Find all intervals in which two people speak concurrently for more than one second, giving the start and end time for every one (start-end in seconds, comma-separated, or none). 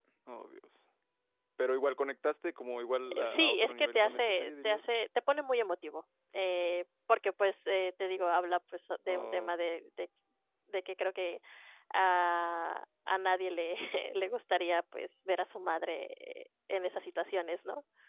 3.1-4.8